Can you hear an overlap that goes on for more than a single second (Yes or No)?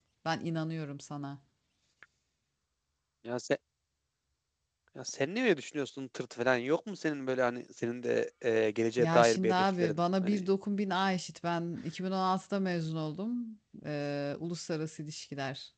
Yes